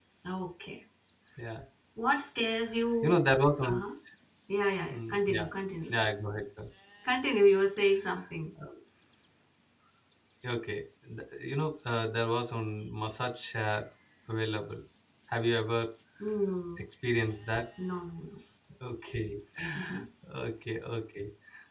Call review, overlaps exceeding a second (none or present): none